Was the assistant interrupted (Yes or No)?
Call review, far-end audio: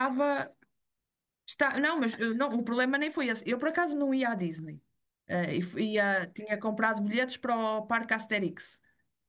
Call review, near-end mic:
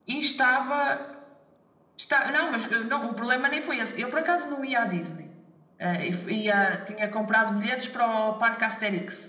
No